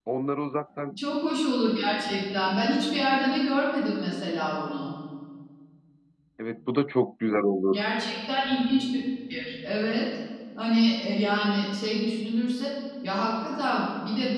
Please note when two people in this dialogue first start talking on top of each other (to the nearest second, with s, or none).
none